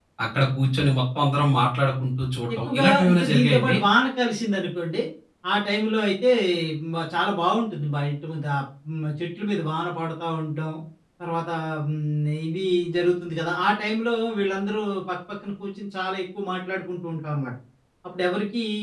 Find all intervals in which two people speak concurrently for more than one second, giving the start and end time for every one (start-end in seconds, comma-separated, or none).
2.5-3.8